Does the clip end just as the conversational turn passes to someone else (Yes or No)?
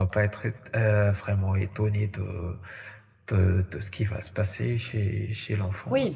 Yes